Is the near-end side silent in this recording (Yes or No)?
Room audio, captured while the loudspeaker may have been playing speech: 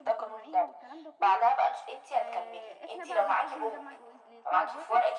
No